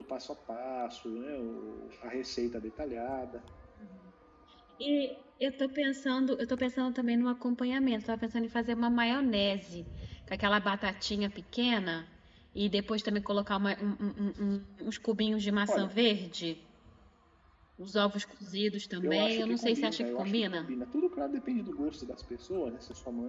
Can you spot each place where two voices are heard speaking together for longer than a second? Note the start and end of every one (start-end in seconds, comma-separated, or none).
19.0-20.7